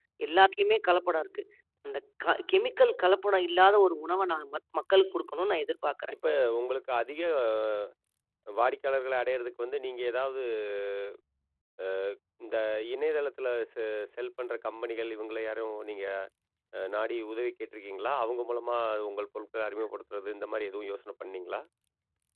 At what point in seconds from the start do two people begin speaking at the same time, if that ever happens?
none

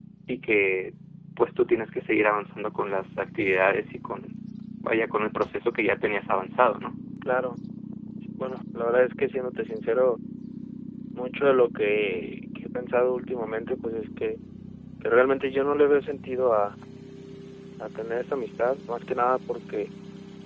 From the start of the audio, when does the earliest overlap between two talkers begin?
none

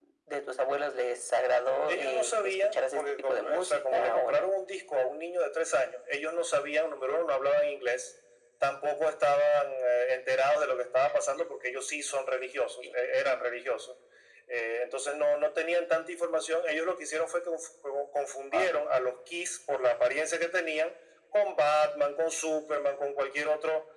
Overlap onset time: 1.9 s

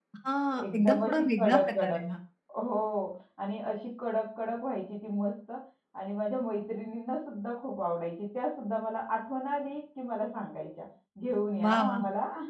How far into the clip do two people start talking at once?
0.6 s

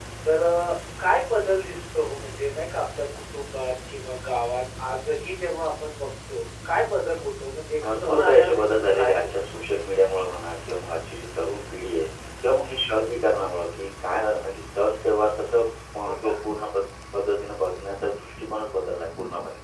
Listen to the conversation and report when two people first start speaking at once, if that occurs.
7.8 s

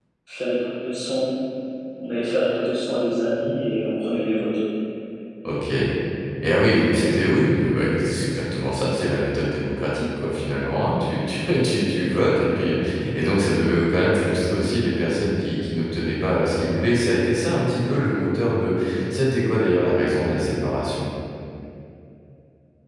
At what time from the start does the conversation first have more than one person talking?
none

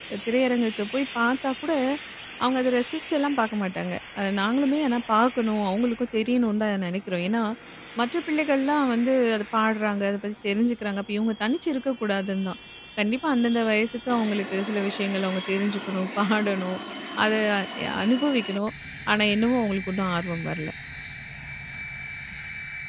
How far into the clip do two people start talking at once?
none

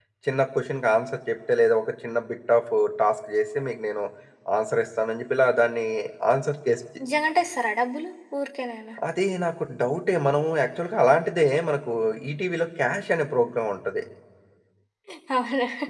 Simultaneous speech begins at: none

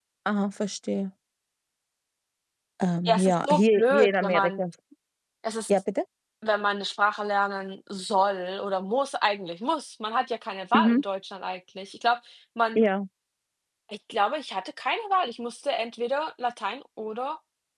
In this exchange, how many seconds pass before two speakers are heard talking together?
3.0 s

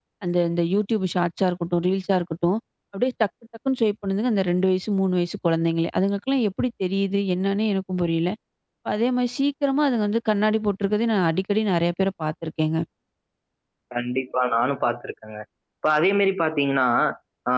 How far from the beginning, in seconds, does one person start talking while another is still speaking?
none

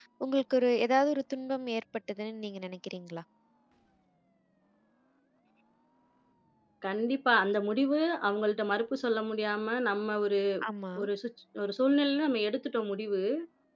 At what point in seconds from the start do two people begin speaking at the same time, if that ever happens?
none

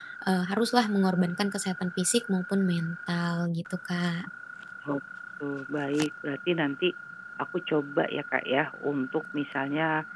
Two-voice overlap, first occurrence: none

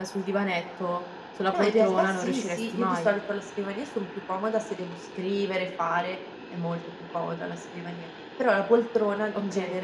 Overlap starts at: 1.5 s

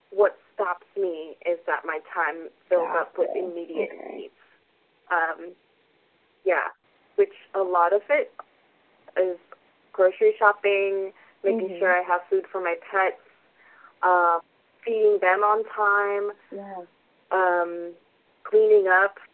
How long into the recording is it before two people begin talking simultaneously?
2.7 s

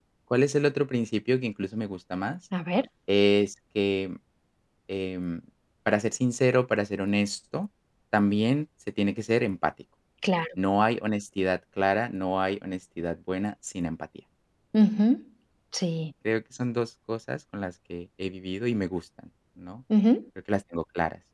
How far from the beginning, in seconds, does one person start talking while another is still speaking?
none

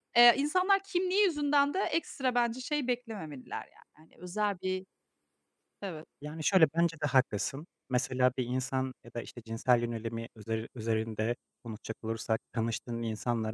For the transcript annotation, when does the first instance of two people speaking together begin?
none

